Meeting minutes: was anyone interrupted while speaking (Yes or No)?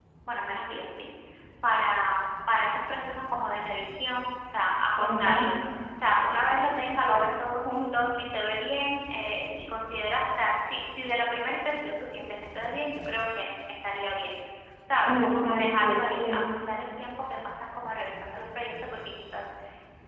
Yes